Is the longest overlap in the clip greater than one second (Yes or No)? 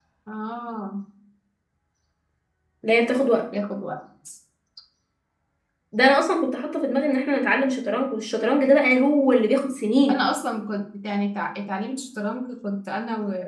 No